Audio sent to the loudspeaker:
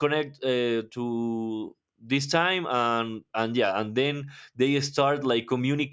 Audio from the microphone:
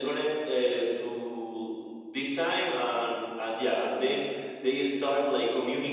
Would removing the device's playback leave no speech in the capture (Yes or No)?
Yes